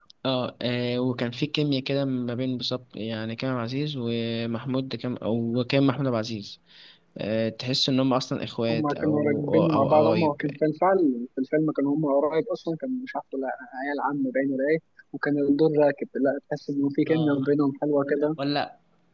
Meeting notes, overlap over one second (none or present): present